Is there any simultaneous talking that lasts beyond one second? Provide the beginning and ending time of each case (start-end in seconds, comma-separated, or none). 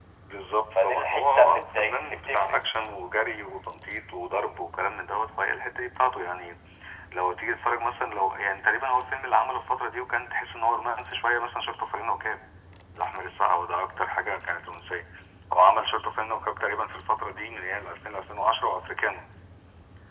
0.8-2.5